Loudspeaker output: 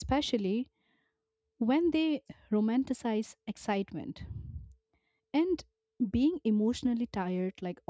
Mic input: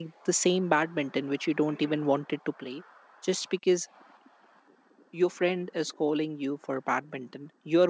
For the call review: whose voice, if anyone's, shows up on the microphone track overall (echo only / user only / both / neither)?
user only